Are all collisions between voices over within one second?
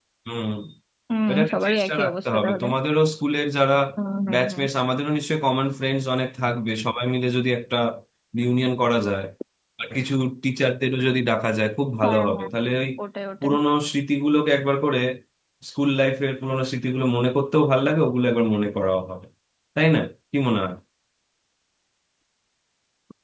No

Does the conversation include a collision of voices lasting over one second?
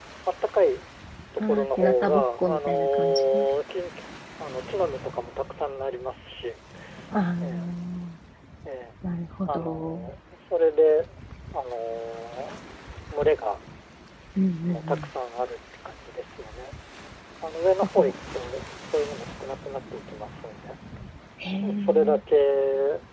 Yes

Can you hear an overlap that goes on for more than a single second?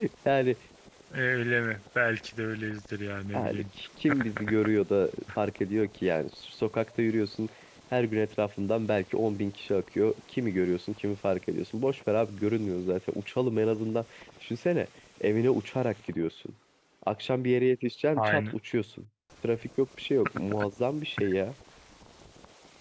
No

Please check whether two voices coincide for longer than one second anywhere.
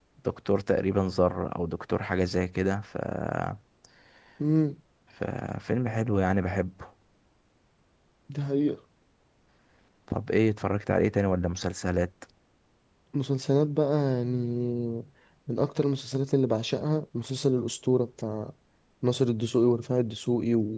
No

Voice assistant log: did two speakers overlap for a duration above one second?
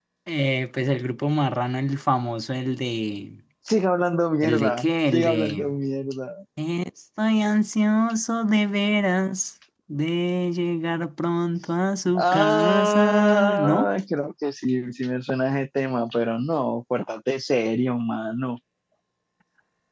Yes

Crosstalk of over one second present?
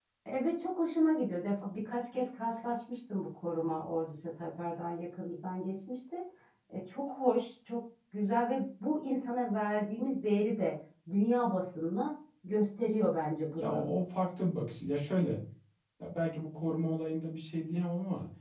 No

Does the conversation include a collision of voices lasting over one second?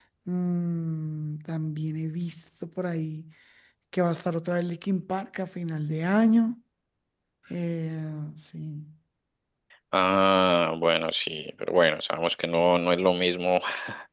No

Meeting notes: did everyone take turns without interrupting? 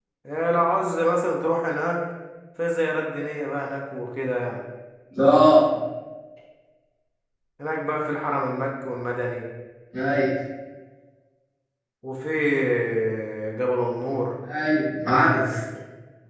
Yes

